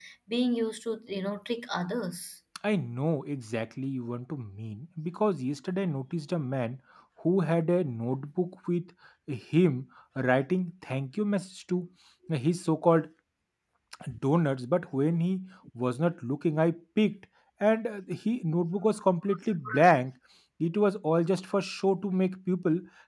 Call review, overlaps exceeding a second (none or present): none